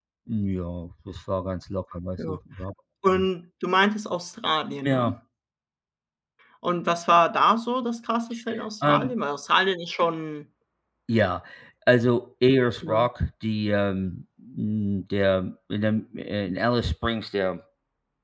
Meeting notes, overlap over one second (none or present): none